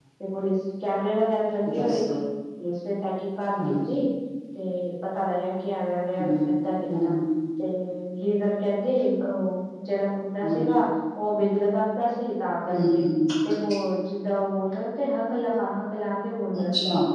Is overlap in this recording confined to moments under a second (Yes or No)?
Yes